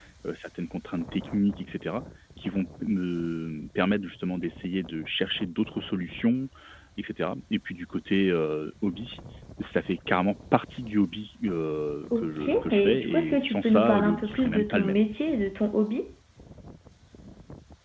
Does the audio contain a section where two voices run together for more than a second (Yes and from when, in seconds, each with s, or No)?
Yes, from 12.1 s